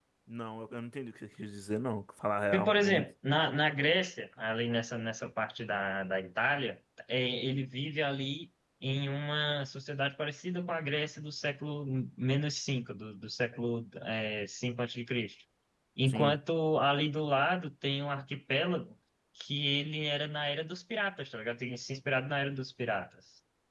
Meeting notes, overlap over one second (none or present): none